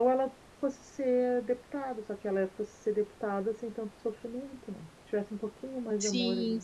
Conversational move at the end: taking over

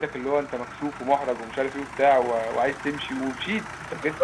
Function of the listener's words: taking over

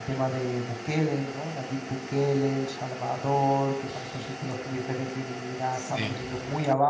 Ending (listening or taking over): listening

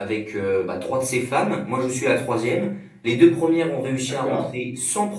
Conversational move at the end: listening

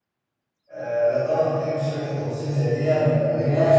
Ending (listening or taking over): taking over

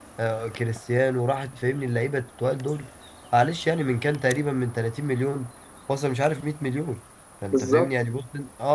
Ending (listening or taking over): listening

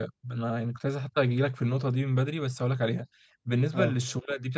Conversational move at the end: listening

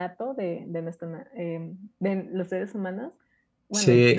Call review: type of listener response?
taking over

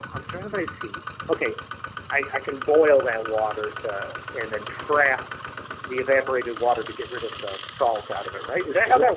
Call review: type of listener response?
taking over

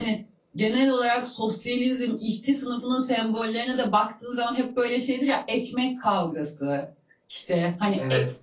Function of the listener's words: listening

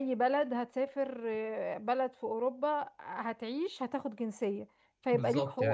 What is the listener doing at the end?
taking over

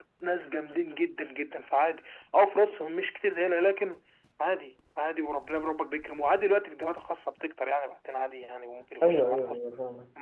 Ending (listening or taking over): taking over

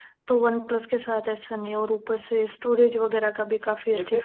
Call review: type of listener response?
taking over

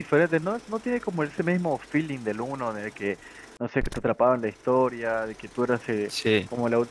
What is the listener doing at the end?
listening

